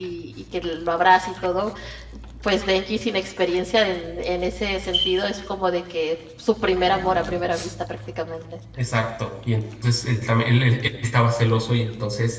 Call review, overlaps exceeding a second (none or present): none